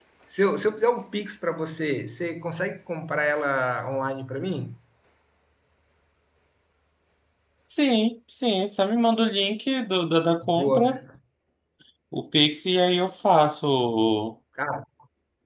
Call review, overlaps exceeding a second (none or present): none